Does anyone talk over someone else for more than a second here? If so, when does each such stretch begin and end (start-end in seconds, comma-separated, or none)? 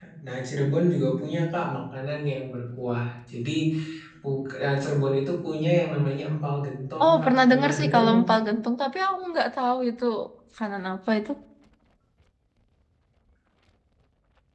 7.0-8.4